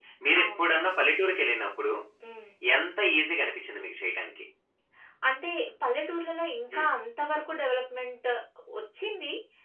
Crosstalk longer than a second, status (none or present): none